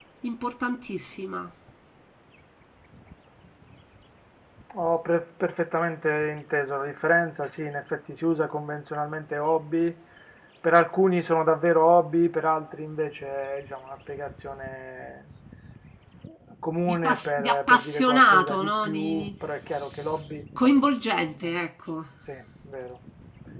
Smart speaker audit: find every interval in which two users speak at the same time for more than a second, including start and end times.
16.9-19.3

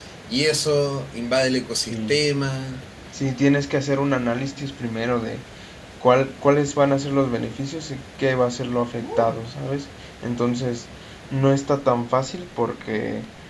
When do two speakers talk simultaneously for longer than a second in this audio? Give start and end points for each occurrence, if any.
none

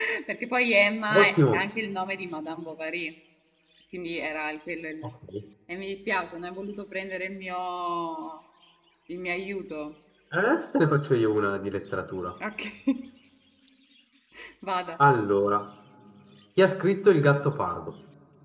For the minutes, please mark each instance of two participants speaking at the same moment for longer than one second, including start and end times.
none

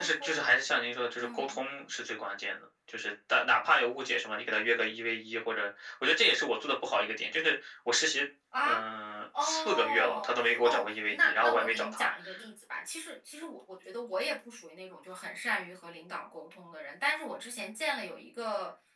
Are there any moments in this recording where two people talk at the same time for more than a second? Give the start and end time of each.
9.4-12.1

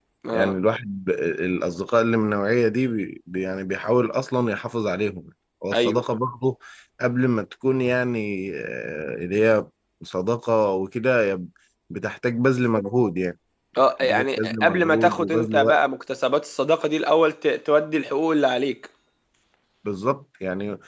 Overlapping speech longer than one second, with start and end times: 14.0-15.8

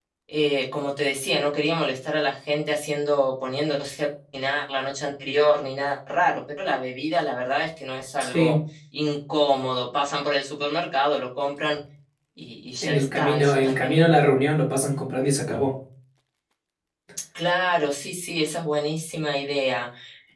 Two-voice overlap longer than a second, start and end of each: 12.8-14.1

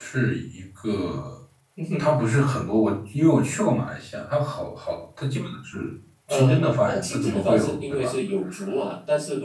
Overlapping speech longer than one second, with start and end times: 6.3-8.1

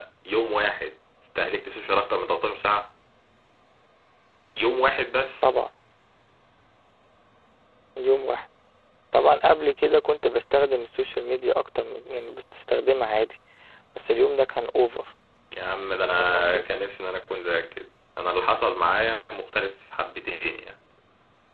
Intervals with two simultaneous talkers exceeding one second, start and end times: none

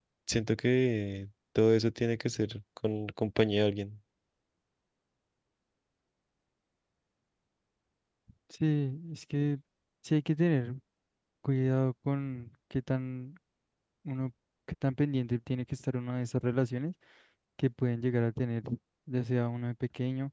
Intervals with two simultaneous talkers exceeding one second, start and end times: none

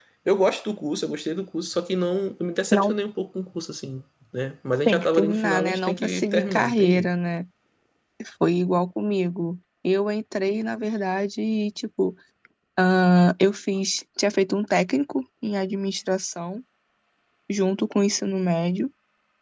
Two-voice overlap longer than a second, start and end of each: 4.8-7.1

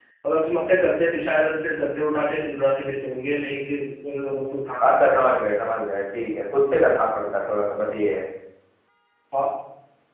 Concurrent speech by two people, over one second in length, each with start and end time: none

